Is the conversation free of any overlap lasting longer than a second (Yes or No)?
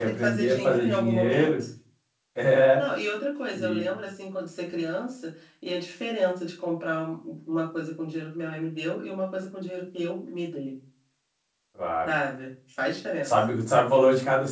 No